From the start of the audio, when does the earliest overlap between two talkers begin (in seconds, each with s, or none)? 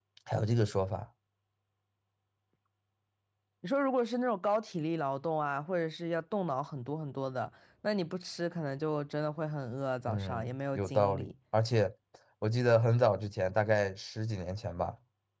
10.1 s